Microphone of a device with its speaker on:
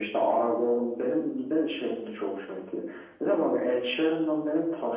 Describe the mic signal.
echo only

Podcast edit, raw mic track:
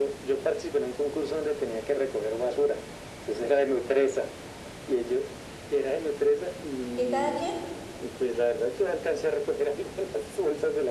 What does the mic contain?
both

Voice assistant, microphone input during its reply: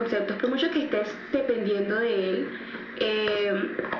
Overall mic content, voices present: echo only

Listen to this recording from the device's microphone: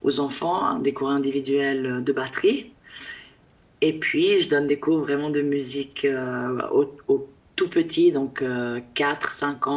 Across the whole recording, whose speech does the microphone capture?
user only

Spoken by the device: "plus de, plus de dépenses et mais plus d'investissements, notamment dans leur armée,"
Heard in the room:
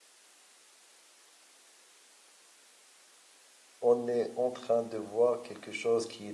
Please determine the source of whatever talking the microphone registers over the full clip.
user only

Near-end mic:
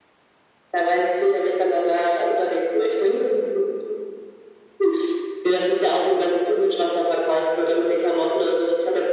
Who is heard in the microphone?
echo only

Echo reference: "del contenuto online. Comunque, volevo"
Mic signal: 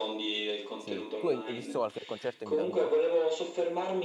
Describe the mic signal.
both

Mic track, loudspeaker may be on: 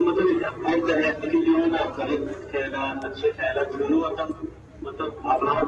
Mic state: echo only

